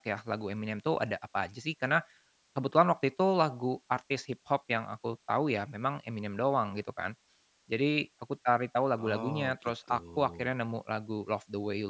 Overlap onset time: 9 s

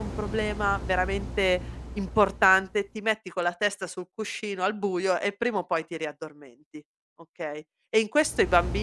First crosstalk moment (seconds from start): none

